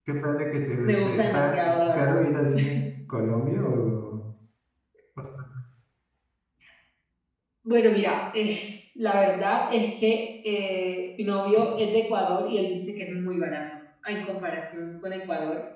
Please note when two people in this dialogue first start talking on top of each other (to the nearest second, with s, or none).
1 s